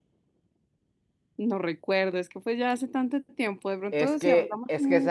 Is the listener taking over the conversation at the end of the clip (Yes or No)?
Yes